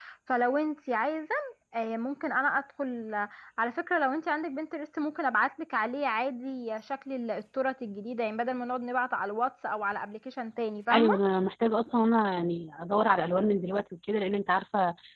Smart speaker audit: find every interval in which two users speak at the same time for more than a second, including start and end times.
none

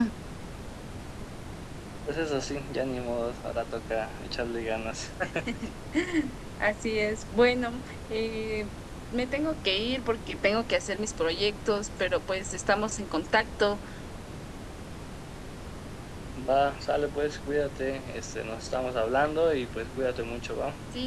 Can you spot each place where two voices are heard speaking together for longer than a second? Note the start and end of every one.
none

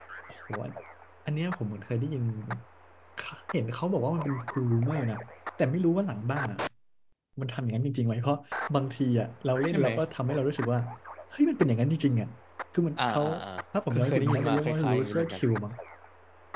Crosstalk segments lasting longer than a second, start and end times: 13.9-15.4

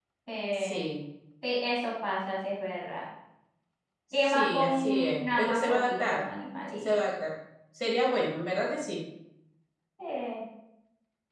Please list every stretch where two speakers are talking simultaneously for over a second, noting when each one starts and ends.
4.2-6.2

